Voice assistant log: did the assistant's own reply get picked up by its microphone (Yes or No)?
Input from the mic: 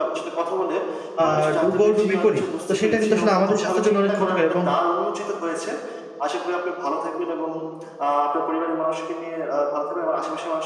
Yes